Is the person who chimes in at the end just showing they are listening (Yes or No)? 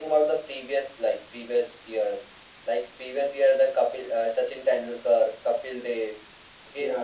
Yes